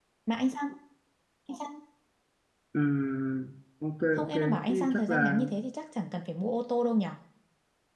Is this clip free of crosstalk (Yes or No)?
No